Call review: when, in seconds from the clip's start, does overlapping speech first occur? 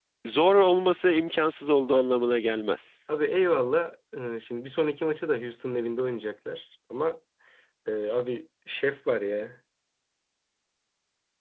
none

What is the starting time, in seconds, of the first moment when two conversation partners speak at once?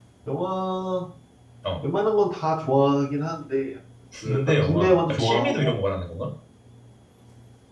4.2 s

